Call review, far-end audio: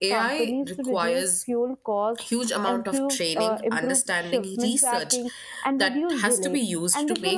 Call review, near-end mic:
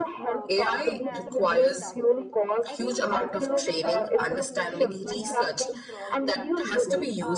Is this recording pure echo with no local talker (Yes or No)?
No